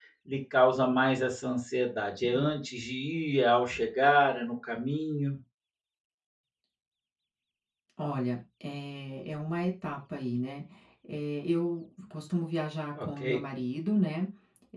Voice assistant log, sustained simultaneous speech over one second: none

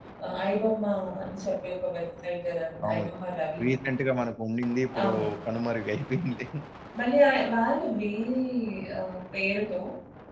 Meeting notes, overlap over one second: none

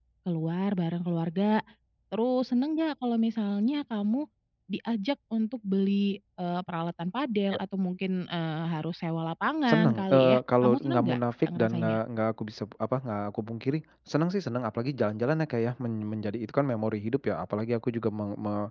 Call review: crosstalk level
present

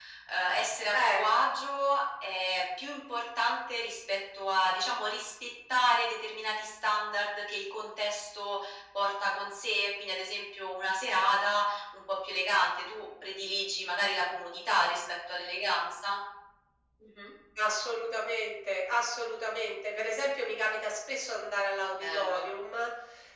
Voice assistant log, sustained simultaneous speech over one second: none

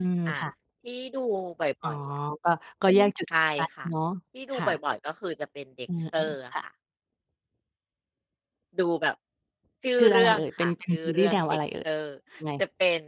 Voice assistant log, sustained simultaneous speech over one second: present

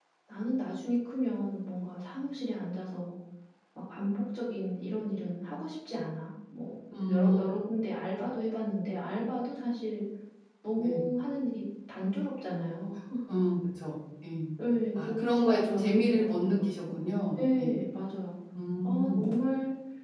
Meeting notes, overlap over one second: present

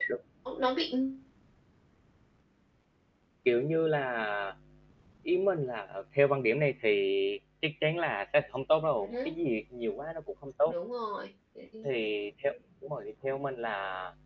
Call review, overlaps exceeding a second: none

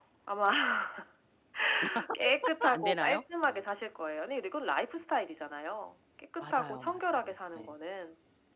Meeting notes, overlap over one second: present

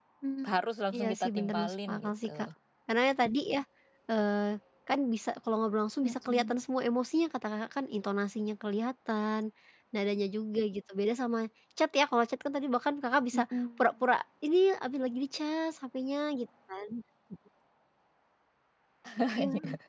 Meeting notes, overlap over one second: present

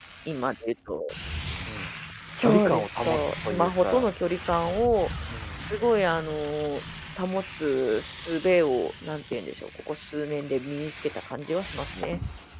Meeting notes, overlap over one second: present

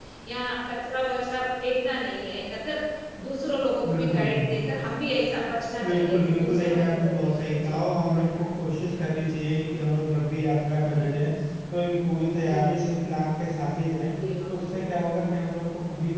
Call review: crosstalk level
present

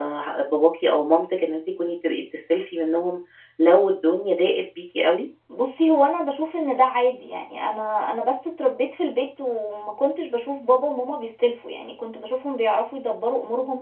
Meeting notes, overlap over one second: none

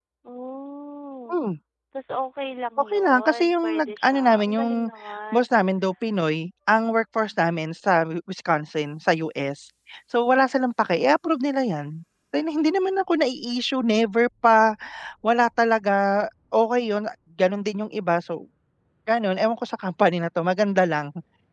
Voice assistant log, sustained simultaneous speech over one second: present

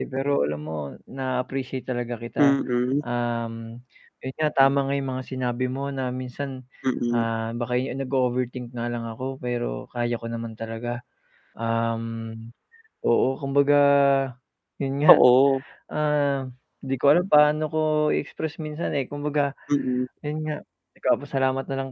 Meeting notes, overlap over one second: none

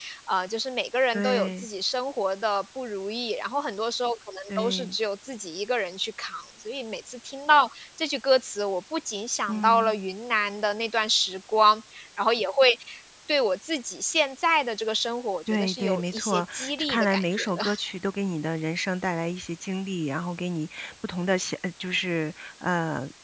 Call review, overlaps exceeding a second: present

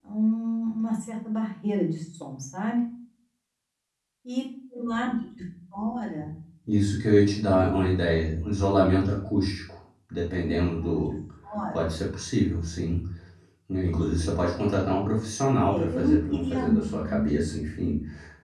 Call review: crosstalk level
present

